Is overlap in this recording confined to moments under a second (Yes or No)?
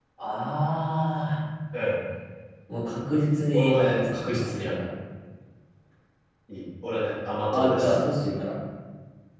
No